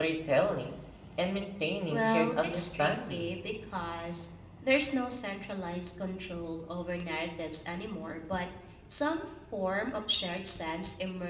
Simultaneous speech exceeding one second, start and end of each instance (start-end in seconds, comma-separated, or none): 1.9-3.3